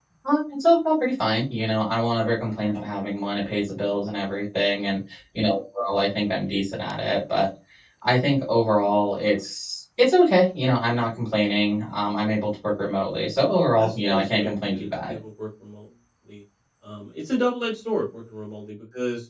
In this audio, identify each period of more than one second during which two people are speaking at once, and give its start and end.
13.8-15.1

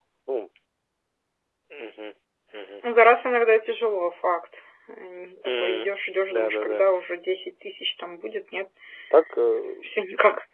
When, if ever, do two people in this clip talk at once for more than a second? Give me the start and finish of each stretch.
none

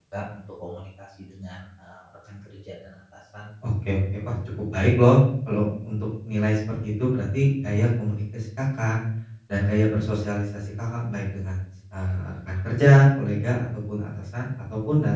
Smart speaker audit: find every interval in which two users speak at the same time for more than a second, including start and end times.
none

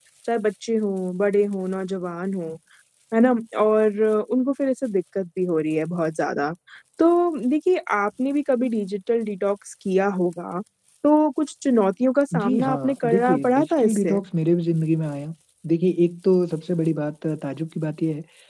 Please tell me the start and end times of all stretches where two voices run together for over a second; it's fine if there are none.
12.4-14.2

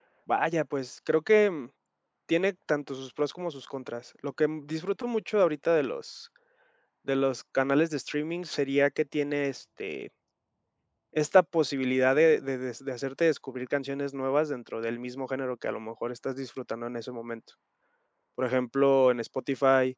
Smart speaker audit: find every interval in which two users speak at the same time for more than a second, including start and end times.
none

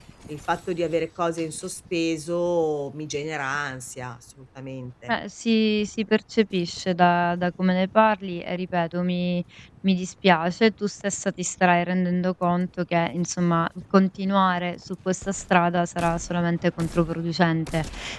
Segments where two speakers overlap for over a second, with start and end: none

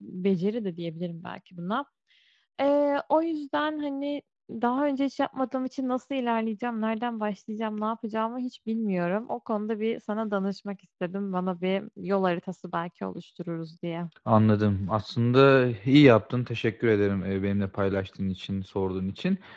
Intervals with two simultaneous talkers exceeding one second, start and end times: none

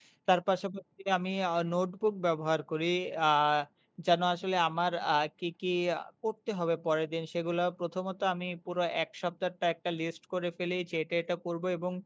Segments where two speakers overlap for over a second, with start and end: none

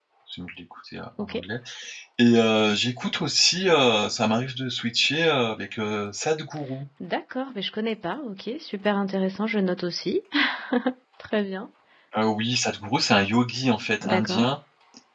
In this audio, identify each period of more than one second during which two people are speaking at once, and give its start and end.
none

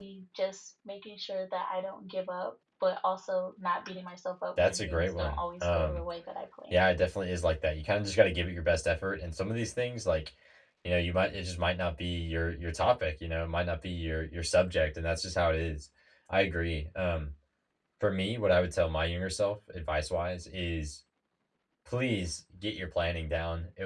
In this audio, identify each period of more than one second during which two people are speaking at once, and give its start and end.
4.6-6.0

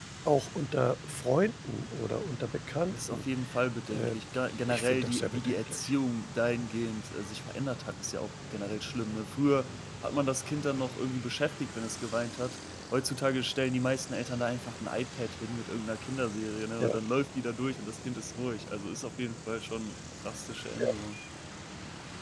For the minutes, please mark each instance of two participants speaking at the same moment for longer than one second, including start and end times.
4.7-5.9

